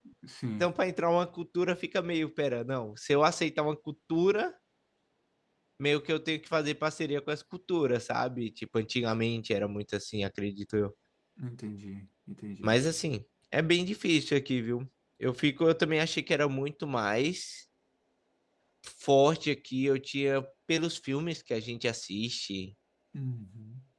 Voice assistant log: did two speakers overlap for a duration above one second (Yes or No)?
No